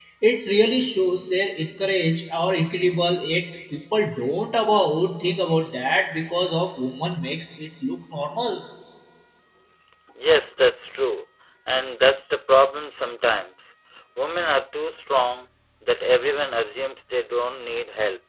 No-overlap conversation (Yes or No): Yes